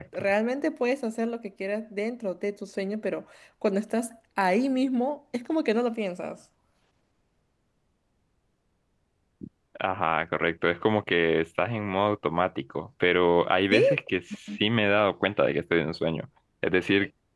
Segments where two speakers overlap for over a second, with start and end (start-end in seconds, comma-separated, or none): none